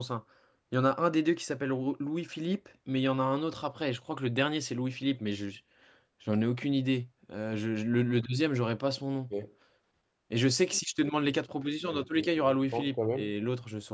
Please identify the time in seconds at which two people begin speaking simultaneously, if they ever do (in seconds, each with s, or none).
11.8 s